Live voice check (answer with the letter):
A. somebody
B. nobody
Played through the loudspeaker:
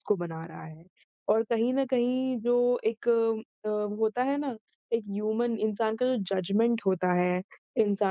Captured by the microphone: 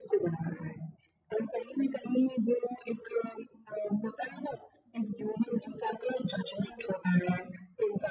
B